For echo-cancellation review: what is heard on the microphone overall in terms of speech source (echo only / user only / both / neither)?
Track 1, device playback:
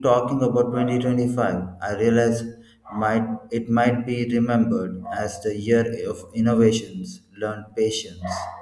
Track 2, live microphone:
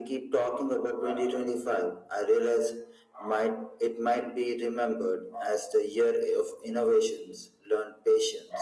echo only